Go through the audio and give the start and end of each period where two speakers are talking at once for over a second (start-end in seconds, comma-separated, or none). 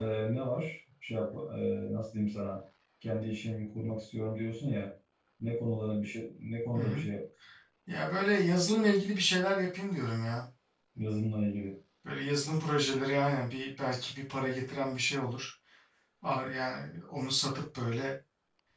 none